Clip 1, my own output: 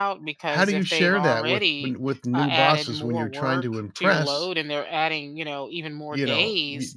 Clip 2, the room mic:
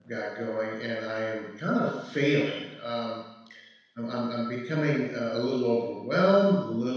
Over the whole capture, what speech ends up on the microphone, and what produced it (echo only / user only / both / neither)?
user only